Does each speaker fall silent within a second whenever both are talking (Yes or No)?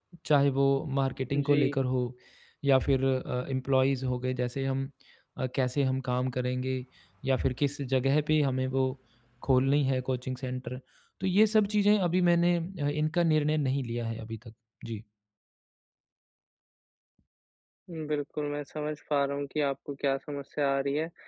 Yes